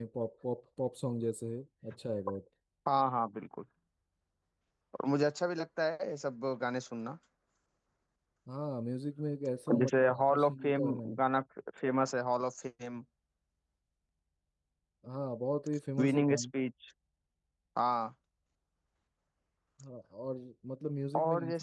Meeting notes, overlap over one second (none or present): present